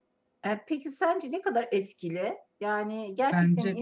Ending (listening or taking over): listening